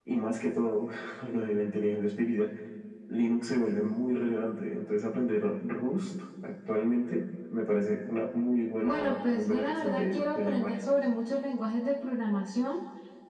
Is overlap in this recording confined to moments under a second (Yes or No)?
No